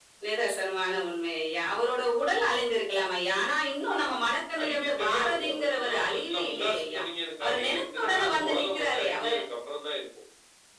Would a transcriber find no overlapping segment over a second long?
No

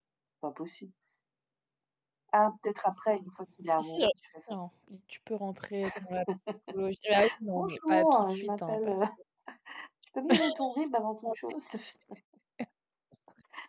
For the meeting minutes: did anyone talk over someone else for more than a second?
Yes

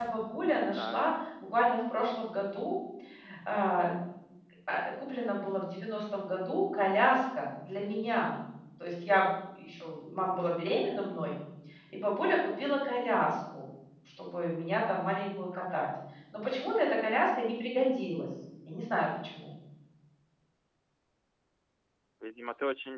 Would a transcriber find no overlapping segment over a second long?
Yes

